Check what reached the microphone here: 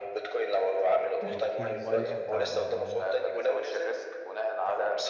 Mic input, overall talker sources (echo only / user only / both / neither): both